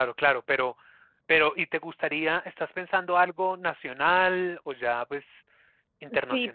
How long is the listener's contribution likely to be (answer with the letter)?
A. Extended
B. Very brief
A